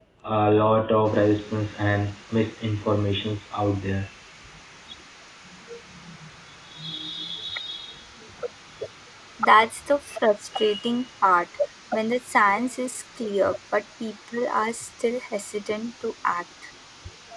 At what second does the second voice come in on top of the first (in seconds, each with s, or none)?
none